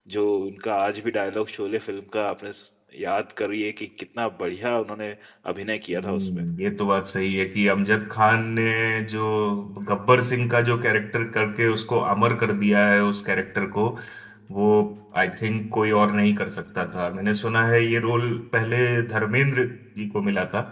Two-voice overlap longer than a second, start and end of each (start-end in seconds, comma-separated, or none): none